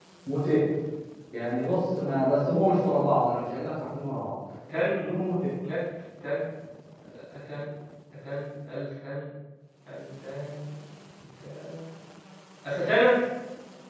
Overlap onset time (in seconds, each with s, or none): none